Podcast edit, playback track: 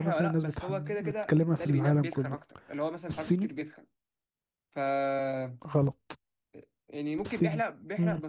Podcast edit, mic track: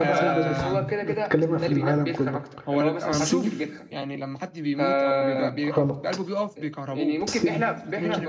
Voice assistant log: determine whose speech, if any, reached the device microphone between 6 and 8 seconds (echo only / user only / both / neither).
both